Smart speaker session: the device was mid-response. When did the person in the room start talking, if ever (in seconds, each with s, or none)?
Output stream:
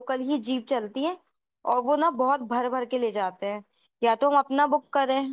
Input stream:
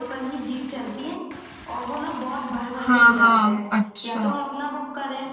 2.8 s